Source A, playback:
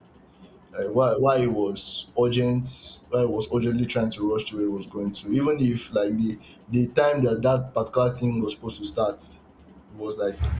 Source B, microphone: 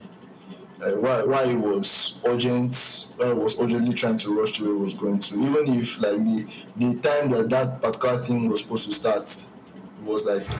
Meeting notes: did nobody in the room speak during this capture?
Yes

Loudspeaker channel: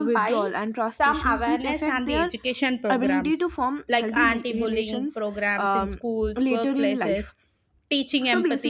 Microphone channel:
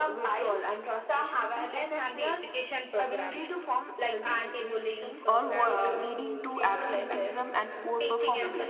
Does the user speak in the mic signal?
Yes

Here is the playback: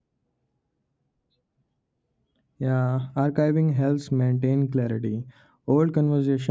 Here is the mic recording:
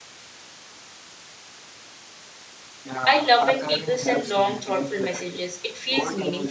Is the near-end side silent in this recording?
No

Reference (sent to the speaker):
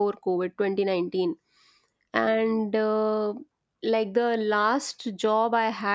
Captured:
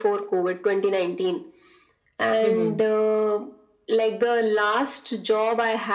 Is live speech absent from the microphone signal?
No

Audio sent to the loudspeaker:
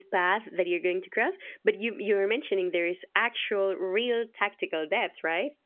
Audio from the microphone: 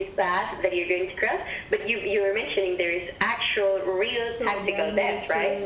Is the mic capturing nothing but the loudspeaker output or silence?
No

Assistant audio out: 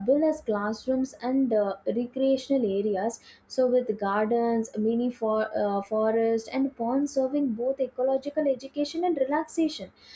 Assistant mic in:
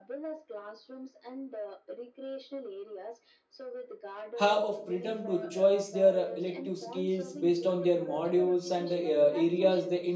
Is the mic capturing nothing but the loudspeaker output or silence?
No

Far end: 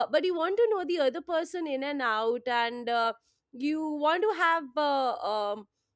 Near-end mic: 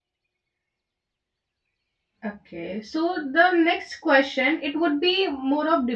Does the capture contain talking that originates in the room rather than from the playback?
Yes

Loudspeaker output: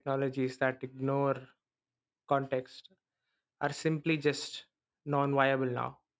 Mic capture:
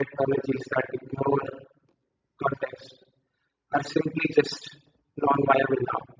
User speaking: No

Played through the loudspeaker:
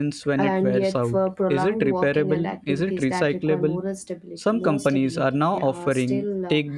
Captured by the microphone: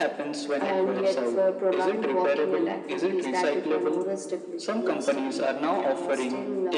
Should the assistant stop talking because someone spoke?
No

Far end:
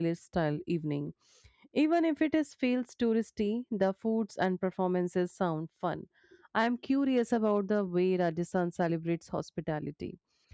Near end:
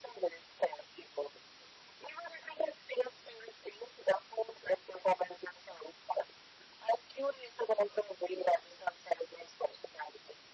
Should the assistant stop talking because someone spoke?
No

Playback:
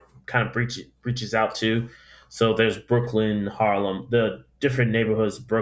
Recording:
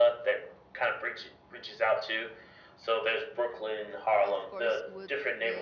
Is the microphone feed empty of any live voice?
No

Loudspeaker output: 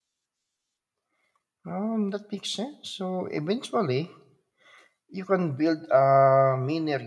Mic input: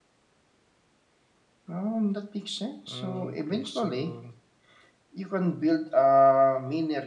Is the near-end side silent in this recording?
No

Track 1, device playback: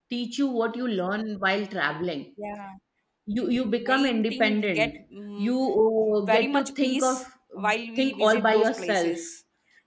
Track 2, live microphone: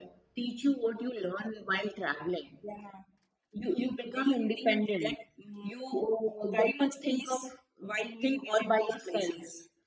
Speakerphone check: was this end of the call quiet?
Yes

